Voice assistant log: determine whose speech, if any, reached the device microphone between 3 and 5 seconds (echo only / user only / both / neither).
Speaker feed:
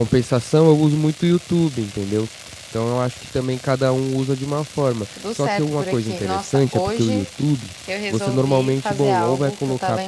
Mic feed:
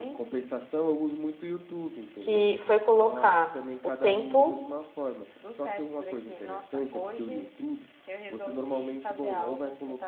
both